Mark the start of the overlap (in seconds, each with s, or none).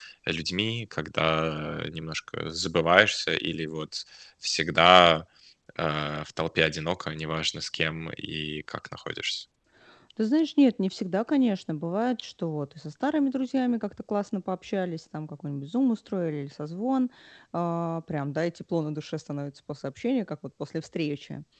none